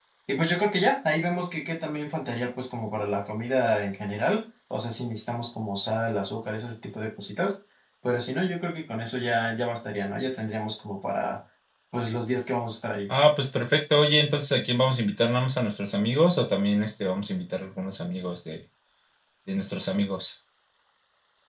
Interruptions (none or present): none